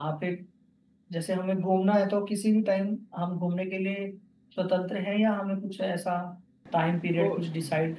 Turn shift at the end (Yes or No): No